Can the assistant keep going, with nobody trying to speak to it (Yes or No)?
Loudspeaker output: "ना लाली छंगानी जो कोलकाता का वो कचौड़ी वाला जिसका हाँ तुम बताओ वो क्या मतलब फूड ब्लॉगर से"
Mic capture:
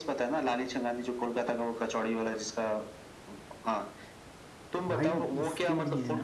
No